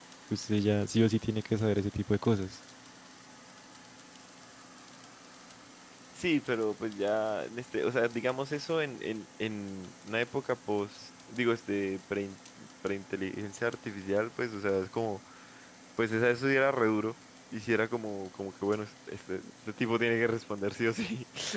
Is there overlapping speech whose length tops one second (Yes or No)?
No